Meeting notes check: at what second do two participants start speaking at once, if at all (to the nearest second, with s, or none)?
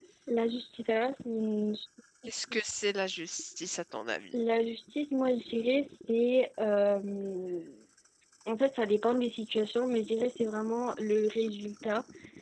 none